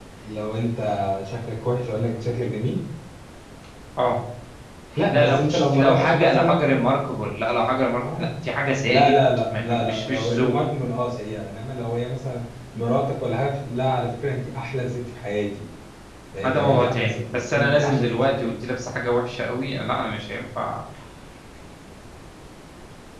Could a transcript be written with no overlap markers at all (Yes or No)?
No